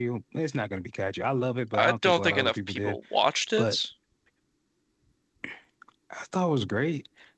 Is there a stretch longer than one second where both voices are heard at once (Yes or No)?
Yes